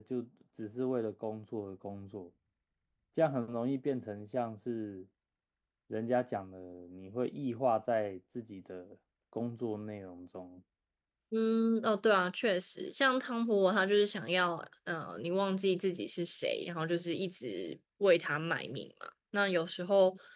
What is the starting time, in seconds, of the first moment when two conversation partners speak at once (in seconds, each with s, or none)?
none